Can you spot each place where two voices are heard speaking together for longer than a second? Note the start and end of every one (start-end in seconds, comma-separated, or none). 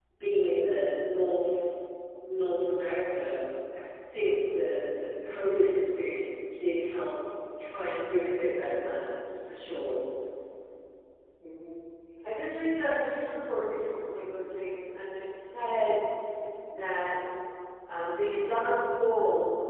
none